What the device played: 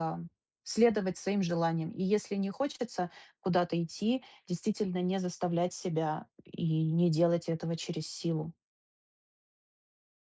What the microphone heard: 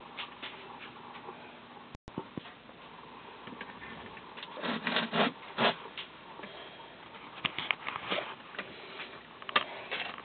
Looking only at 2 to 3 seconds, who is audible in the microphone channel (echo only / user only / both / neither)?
neither